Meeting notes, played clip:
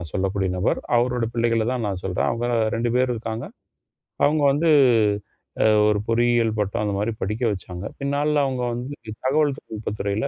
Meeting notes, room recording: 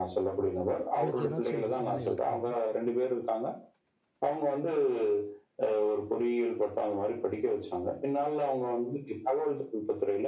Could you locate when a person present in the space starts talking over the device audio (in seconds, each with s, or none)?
1.0 s